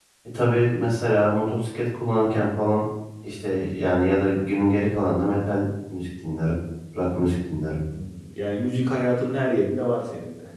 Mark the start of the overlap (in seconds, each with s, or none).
none